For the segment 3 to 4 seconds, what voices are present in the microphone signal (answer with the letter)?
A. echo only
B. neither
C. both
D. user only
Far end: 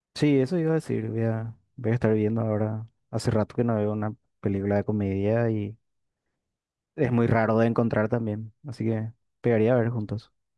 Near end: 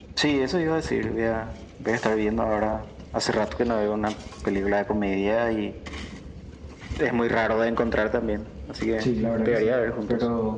A